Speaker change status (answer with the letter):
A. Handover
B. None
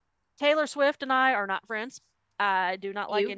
B